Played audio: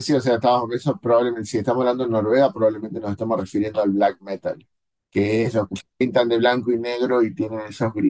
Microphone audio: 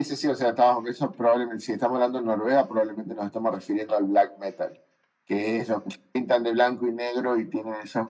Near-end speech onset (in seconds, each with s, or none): none